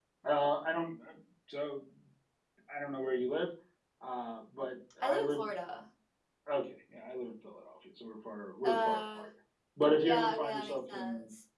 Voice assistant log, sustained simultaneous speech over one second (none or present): present